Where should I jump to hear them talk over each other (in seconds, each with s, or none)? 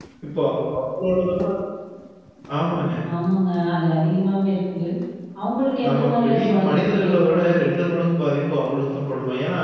5.6 s